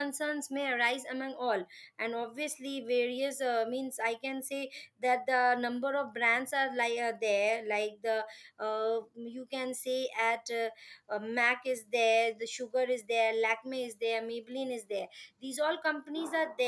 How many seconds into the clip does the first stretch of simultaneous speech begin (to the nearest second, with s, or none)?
none